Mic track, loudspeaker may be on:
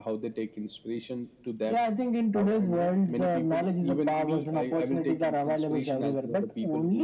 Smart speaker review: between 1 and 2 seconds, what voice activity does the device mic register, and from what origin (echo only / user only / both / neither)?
echo only